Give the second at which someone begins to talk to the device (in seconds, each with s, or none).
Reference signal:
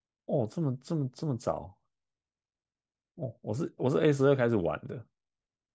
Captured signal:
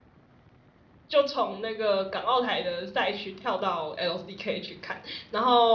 1.1 s